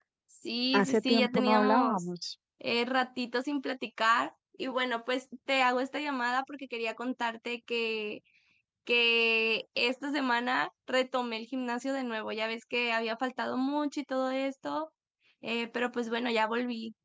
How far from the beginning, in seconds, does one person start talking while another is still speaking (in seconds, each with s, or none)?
0.7 s